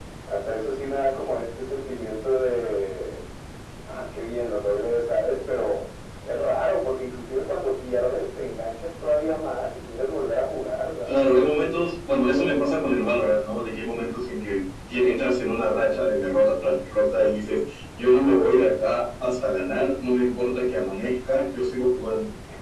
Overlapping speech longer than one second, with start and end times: none

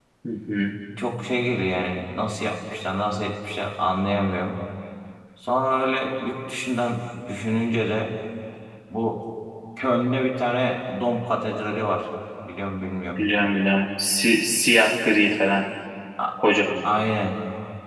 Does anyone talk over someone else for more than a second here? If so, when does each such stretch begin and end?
none

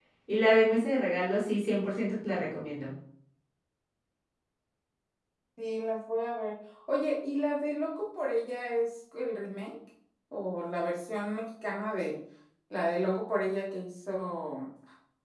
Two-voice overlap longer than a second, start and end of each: none

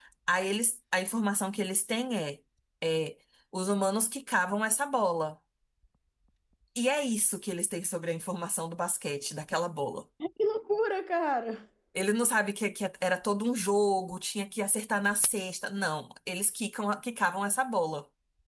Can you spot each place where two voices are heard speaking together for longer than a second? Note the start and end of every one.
none

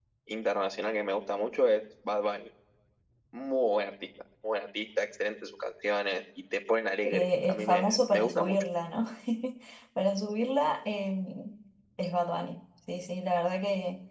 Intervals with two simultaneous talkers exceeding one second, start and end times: 7.0-8.6

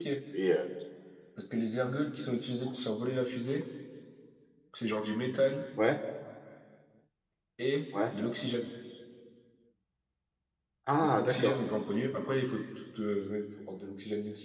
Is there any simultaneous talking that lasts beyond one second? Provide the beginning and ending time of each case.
none

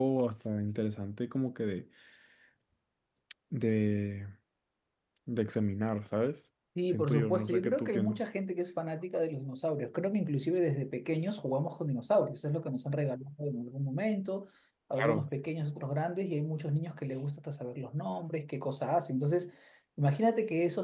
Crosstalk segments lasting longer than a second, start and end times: 6.9-8.2

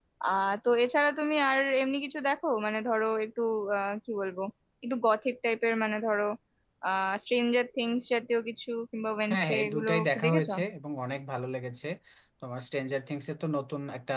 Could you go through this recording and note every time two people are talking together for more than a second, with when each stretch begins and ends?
9.3-10.5

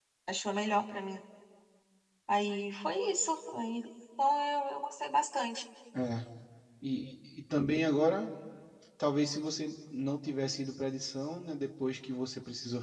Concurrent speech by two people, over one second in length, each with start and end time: none

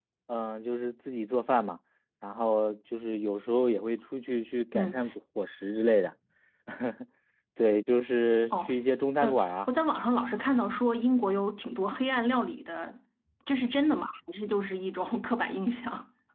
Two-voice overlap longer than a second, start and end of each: none

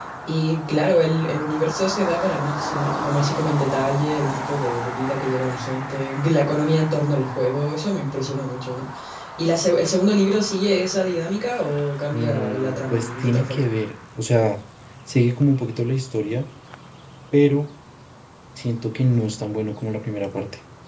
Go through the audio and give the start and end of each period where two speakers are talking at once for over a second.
12.1-13.7

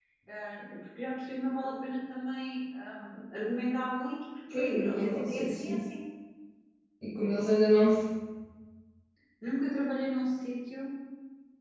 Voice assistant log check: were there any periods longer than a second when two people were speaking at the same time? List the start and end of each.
4.5-5.8

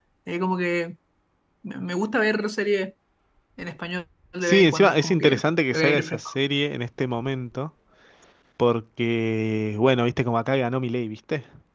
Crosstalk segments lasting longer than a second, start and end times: 4.4-6.3

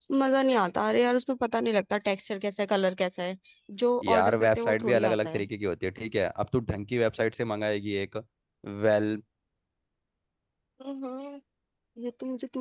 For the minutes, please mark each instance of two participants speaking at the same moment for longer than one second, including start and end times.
4.0-5.5

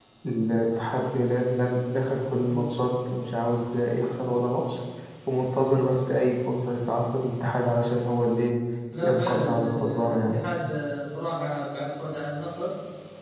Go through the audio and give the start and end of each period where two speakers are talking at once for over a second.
9.0-10.4

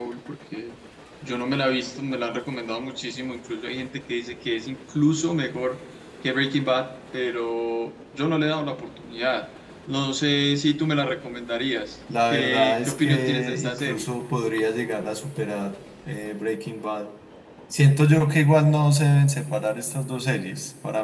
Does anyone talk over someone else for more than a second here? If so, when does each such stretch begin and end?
12.3-14.1

